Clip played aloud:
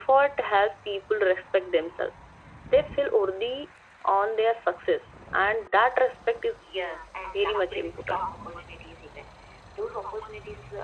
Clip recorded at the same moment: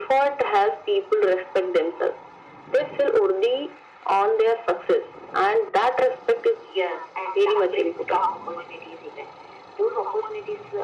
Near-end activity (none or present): none